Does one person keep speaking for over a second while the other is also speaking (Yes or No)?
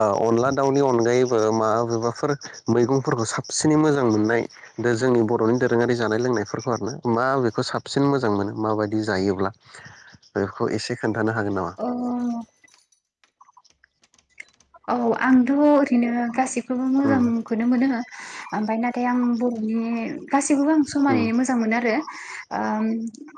No